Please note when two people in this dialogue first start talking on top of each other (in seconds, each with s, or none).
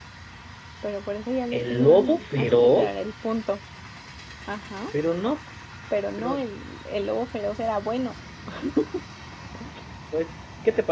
1.6 s